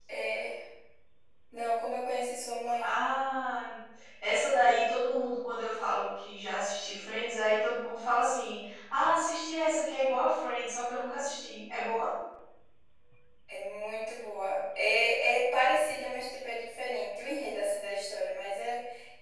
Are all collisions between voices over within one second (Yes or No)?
Yes